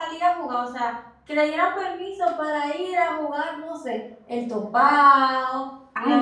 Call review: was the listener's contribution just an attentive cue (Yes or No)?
No